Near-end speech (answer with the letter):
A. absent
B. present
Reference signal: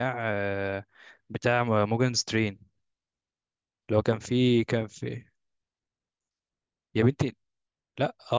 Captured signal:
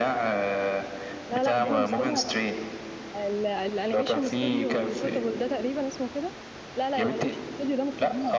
B